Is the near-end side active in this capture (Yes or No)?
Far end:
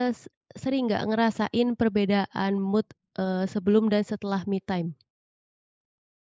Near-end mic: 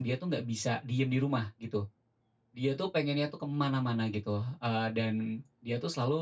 Yes